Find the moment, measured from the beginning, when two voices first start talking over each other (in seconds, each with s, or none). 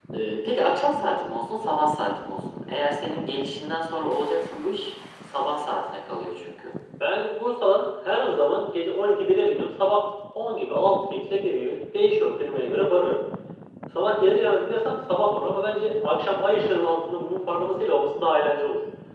none